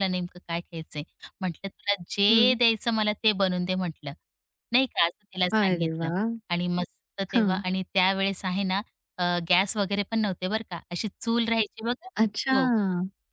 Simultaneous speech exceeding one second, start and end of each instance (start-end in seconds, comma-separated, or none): none